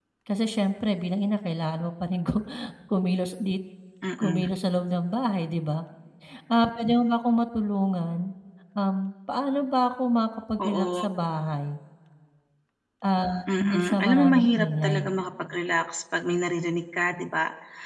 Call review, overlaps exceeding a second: present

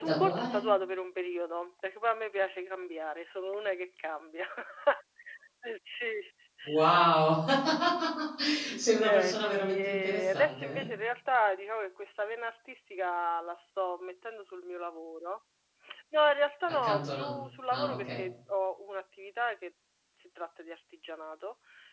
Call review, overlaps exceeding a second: present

